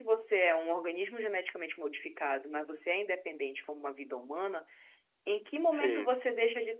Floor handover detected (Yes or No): No